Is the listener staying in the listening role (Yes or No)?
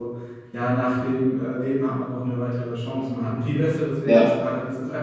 Yes